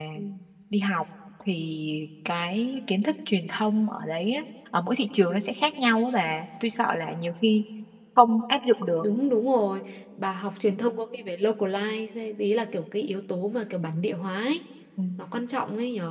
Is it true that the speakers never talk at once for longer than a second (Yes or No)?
Yes